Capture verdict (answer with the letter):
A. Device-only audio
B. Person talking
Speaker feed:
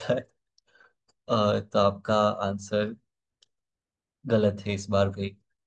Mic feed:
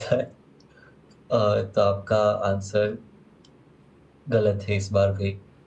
A